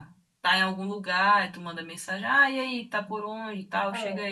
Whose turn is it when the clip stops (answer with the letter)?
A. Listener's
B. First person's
B